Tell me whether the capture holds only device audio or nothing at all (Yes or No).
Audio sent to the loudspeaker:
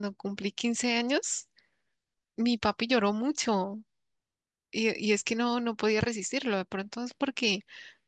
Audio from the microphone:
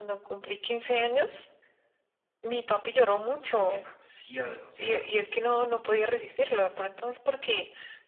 No